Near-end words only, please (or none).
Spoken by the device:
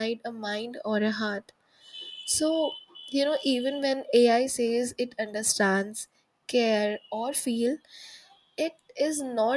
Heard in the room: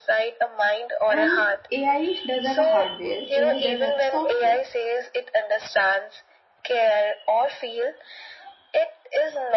And AI does have a hardware, AI does have a software.